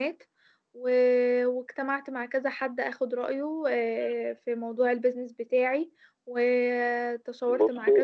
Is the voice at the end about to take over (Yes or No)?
No